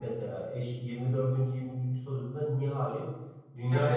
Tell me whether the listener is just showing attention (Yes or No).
Yes